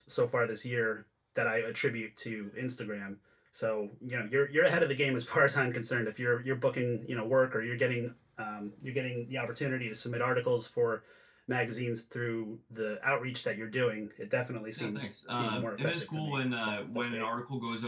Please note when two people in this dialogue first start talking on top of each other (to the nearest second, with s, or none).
15 s